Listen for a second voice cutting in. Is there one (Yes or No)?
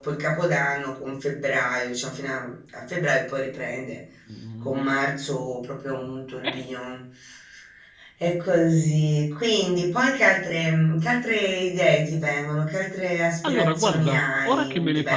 Yes